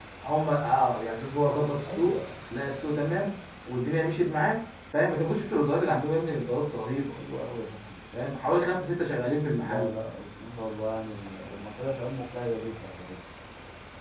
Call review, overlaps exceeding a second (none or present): none